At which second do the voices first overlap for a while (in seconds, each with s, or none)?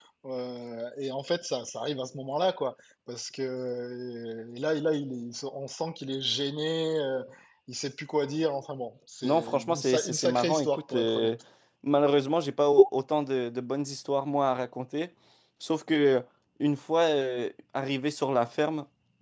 9.2 s